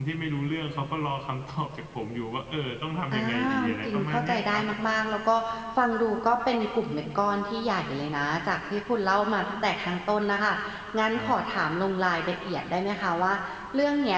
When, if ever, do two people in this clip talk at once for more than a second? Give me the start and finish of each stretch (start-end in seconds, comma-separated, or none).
3.1-4.6